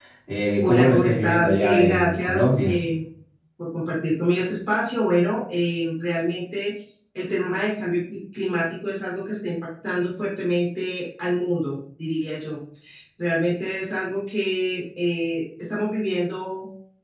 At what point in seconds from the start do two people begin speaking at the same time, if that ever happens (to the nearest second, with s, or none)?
1 s